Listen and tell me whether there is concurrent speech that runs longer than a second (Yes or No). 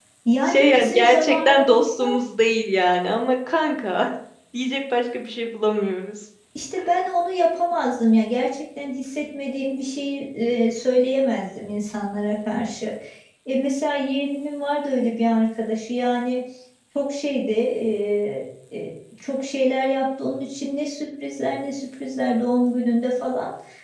Yes